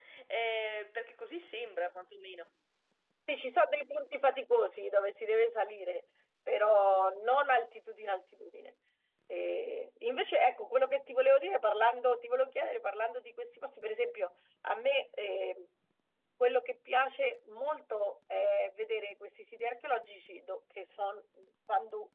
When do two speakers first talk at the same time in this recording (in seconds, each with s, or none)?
none